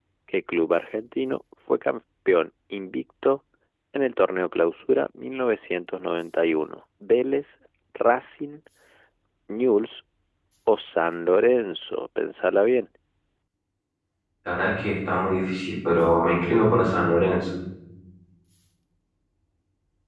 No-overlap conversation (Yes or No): Yes